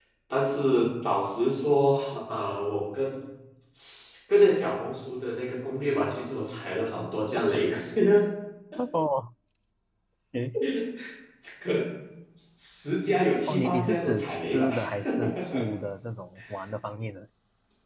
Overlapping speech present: Yes, from 13.5 s

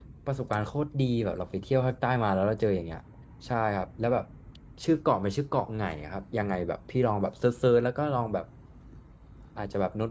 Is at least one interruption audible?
No

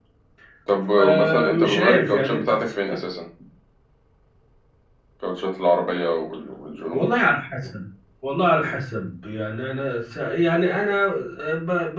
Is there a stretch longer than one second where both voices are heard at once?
Yes, from 1.0 s

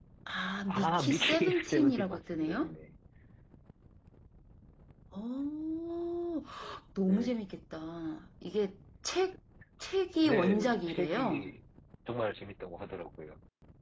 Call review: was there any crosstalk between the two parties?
Yes, from 0.7 s

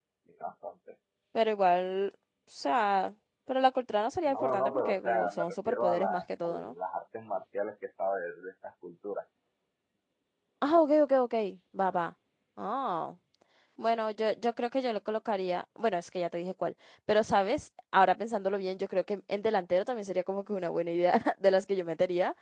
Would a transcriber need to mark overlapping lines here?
Yes, from 4.2 s

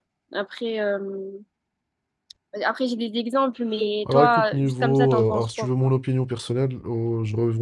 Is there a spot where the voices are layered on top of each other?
Yes, from 4.0 s

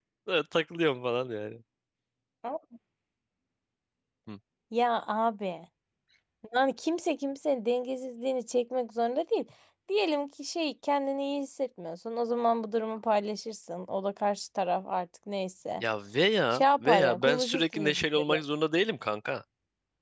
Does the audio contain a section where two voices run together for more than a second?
Yes, from 16.5 s

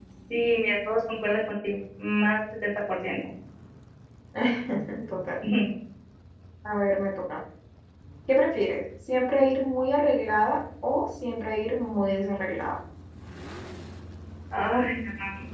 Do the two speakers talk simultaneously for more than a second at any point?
No

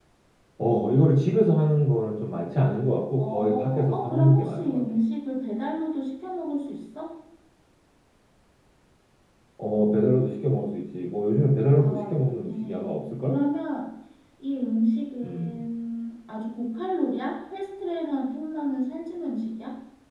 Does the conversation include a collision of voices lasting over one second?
Yes, from 3.2 s

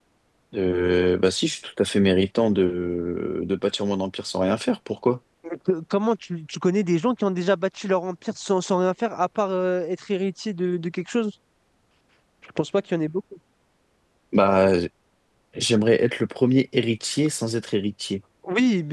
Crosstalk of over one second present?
No

